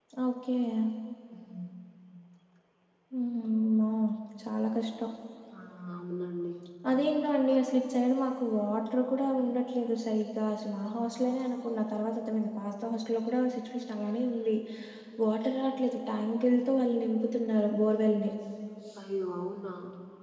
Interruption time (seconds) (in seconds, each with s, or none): none